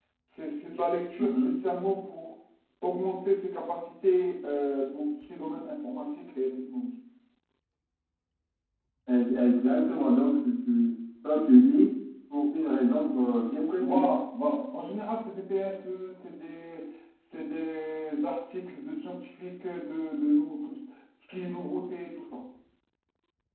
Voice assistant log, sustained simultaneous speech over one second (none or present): none